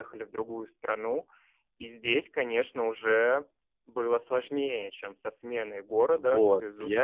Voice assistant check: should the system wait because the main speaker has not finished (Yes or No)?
No